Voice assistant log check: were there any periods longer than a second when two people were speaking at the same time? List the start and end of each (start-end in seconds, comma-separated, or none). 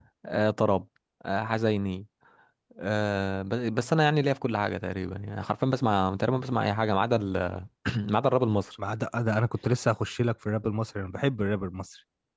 none